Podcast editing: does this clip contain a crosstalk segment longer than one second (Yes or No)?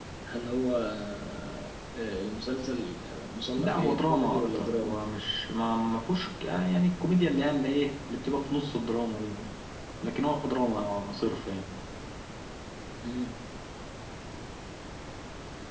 Yes